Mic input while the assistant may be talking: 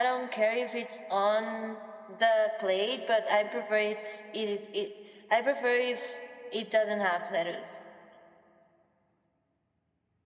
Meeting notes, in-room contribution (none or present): none